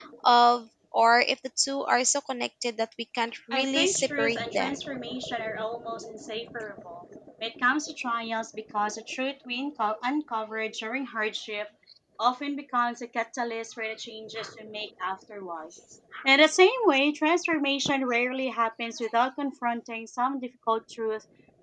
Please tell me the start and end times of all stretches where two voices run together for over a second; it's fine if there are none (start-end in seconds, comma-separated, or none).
3.5-4.8